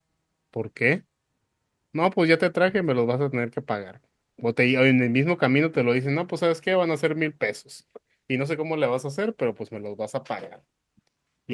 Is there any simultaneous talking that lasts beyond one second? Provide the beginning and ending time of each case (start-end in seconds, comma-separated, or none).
none